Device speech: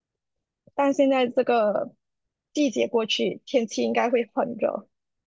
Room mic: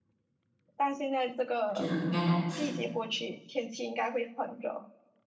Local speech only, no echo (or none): 我记得应该两次。